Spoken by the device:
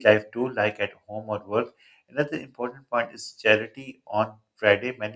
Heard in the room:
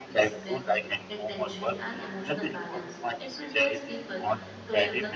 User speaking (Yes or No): Yes